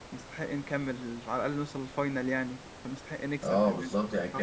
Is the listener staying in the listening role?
No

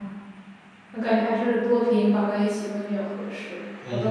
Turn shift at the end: Yes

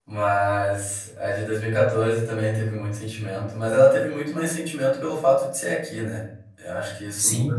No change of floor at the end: No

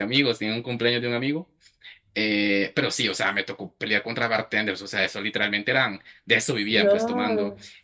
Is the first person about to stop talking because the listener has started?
No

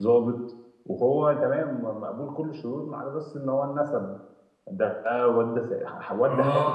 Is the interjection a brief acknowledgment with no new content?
No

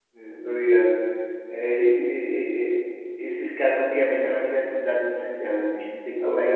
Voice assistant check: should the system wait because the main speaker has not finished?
No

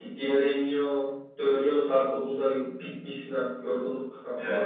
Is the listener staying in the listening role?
No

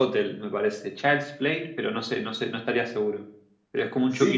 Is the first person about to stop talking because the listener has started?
Yes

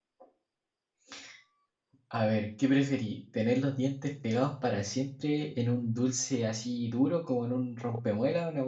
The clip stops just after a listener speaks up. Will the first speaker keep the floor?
Yes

